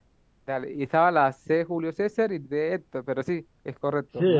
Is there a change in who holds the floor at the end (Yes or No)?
Yes